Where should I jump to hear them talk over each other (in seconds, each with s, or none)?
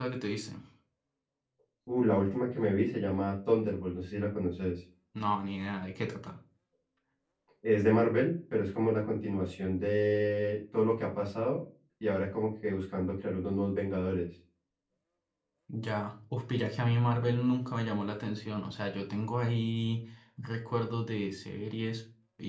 none